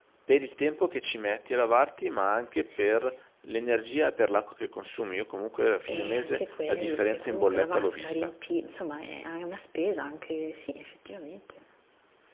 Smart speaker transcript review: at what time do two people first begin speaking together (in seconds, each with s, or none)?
5.9 s